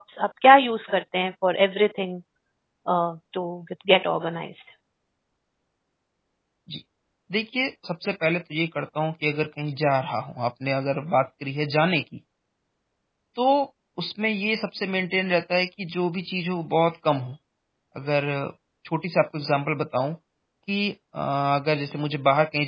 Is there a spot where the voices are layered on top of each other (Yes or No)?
No